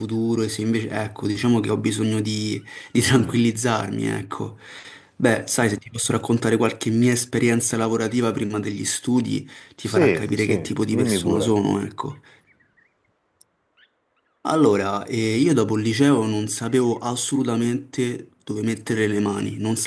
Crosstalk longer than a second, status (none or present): present